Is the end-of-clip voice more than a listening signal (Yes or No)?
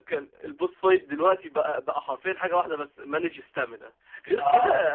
No